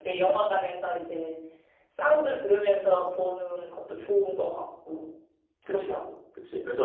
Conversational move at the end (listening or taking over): taking over